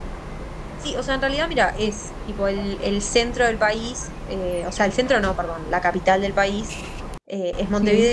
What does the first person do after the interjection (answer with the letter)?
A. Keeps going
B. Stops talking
A